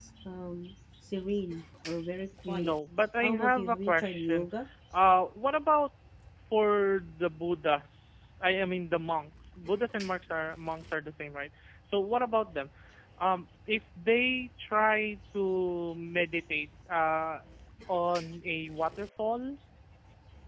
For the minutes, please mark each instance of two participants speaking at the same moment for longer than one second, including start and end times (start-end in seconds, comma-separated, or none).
3.2-4.5